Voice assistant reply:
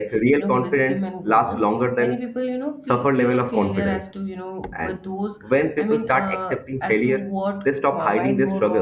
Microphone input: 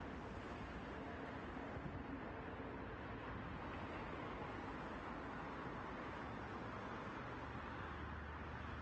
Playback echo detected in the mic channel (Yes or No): No